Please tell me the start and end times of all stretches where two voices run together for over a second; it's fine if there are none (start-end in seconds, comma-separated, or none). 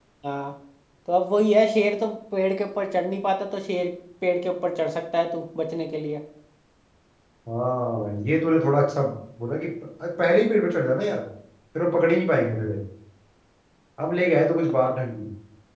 none